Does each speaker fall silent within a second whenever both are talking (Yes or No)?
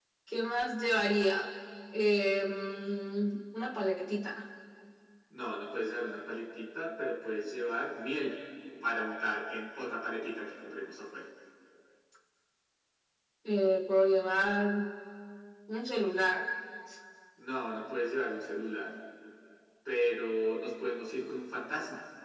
Yes